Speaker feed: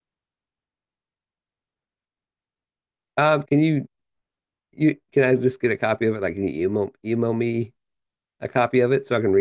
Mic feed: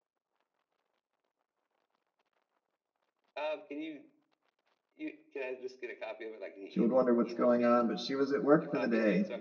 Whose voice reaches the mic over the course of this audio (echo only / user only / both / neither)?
both